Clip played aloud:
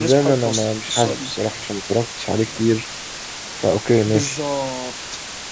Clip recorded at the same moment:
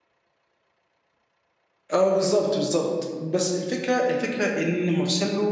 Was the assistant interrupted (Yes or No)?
Yes